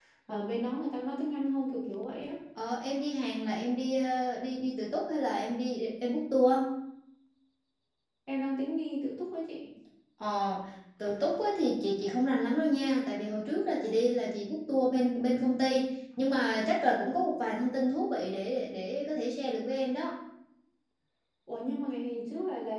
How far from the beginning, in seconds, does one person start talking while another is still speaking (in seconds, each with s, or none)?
none